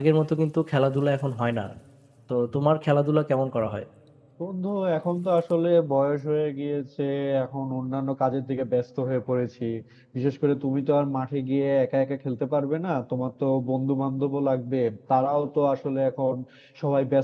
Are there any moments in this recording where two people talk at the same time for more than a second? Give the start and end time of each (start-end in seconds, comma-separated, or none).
none